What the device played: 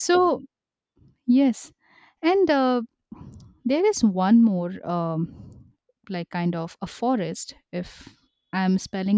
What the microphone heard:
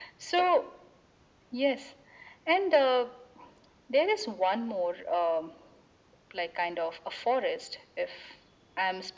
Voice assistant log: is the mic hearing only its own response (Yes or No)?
Yes